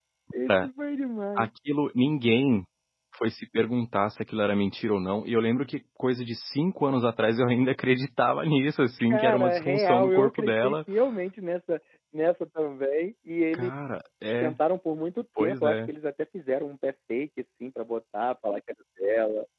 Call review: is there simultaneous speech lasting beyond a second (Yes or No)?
Yes